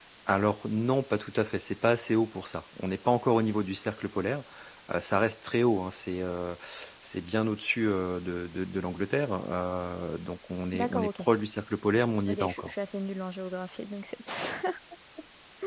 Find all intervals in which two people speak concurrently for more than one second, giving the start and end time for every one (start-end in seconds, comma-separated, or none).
none